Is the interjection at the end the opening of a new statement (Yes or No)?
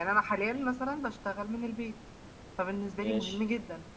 No